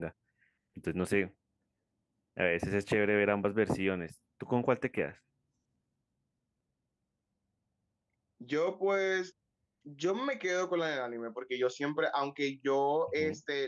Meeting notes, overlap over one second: none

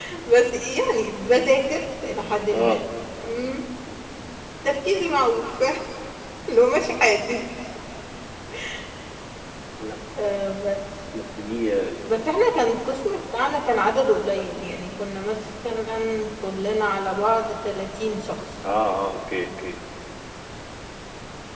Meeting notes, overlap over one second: none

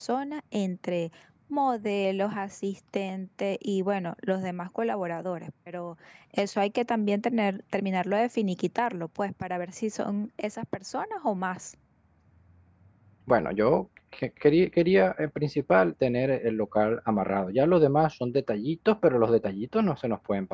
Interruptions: none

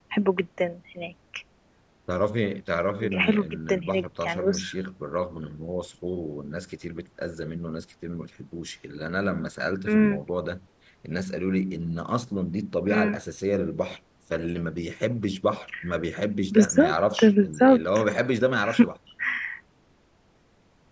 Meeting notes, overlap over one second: present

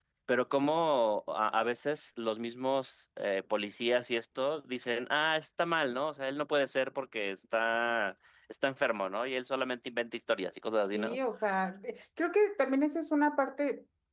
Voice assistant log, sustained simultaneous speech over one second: none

